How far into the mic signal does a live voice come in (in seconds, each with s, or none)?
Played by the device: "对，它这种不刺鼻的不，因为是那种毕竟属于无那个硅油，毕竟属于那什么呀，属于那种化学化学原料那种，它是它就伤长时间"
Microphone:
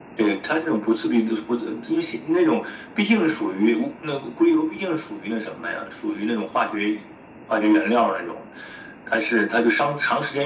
none